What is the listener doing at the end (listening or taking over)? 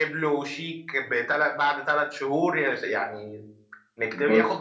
listening